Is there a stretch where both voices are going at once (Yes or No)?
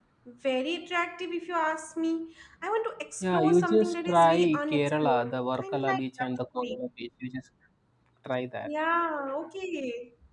Yes